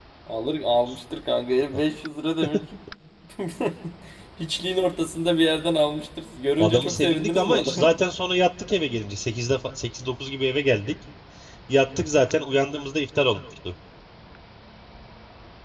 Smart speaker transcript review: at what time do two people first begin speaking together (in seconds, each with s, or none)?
6.6 s